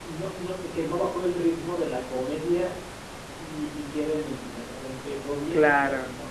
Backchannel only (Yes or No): Yes